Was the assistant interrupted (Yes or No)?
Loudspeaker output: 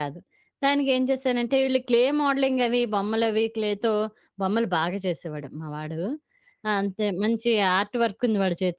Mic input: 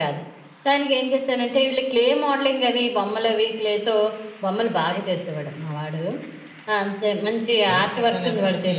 Yes